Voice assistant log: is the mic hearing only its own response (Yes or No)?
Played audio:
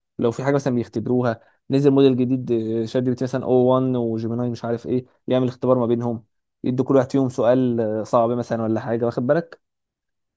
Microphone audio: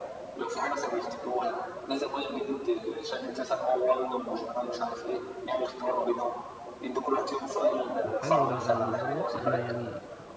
No